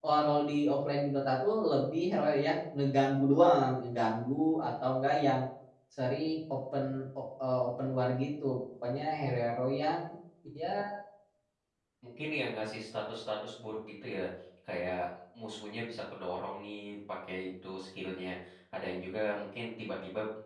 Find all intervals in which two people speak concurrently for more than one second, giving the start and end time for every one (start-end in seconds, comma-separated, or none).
none